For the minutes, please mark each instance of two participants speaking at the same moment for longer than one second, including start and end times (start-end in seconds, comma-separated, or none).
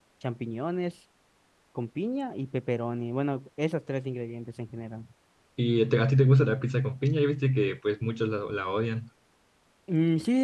none